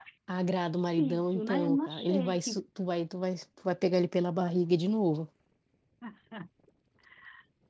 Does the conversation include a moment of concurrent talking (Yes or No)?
Yes